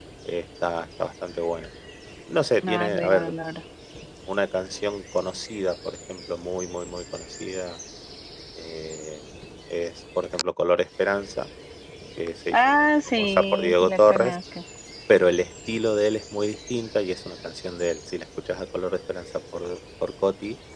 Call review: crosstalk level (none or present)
present